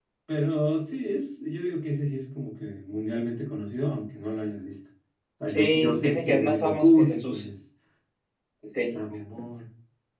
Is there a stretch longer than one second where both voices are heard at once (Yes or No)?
Yes